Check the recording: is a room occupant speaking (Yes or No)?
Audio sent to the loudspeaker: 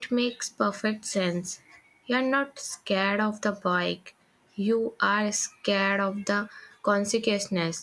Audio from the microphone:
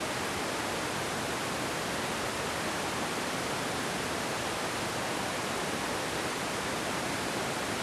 No